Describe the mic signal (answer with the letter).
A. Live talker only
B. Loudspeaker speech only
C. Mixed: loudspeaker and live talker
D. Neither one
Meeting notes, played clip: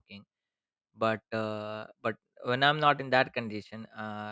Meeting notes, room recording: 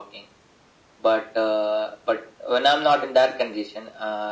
B